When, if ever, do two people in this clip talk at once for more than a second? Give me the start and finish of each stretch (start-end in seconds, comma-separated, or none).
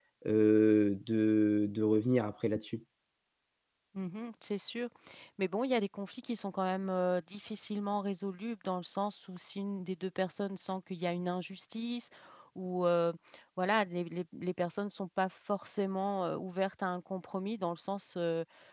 none